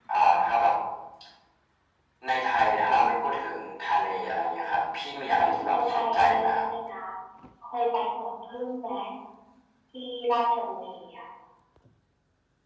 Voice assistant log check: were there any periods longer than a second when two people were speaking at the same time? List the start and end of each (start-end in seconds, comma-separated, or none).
5.2-6.6